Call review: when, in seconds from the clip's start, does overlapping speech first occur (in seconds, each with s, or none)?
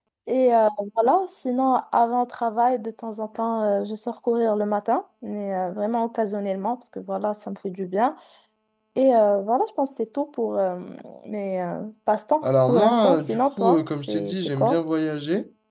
12.4 s